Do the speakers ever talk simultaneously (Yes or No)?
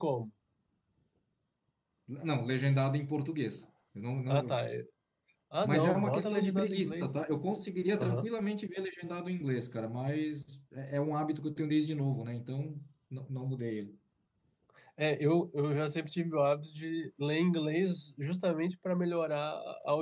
Yes